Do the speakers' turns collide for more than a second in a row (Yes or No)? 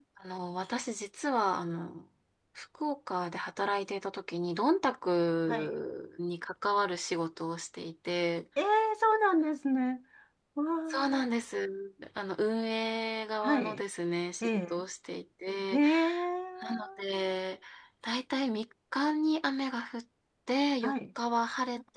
No